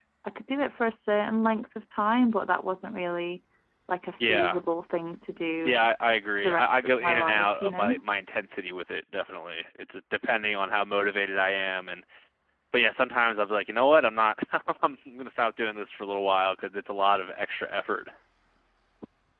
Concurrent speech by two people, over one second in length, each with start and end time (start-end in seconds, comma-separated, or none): 6.4-8.0